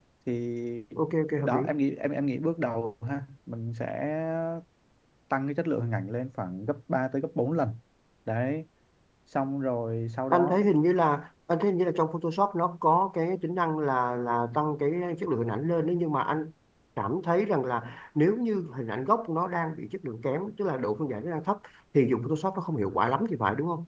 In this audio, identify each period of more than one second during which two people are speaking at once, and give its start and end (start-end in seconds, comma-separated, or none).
none